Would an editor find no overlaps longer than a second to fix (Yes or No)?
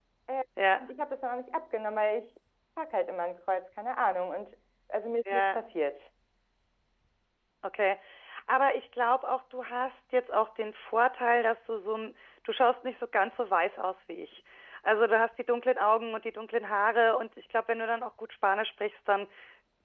Yes